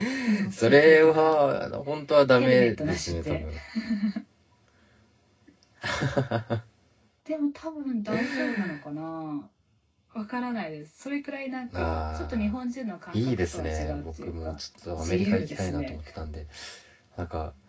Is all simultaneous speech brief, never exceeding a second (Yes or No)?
No